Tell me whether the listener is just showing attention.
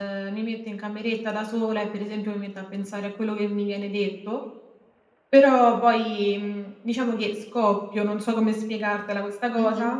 No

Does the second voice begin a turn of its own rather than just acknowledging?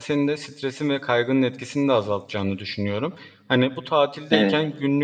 No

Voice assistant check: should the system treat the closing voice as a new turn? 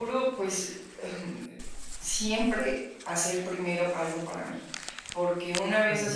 No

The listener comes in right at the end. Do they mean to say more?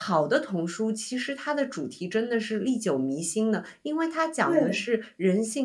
No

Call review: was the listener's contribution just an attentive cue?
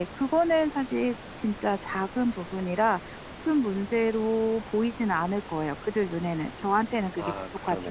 No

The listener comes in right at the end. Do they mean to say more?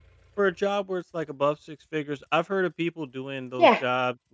No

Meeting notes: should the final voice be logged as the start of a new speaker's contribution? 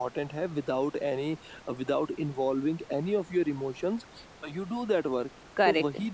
No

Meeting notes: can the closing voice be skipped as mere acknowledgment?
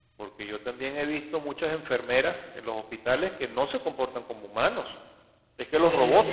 Yes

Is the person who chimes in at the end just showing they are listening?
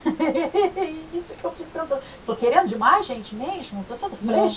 No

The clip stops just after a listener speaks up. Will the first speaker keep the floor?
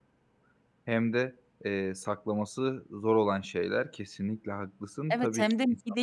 No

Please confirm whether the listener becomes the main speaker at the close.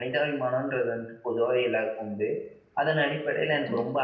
No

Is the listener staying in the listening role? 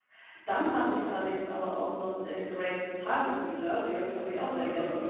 No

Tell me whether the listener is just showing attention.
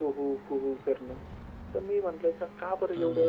Yes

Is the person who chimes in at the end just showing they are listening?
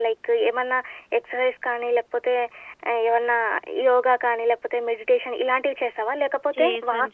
Yes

